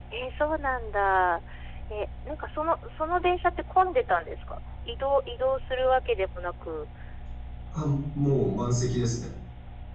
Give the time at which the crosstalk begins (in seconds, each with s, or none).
none